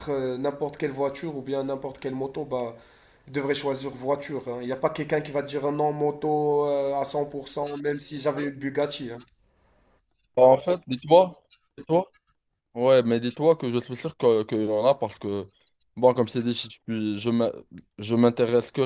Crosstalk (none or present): none